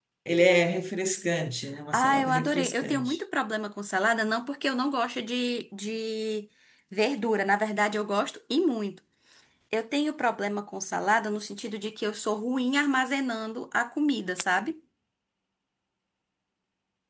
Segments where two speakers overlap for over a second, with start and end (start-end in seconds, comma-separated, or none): 1.9-3.2